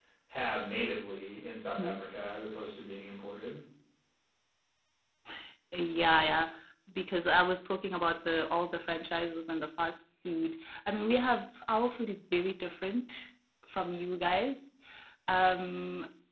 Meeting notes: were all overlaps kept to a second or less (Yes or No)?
Yes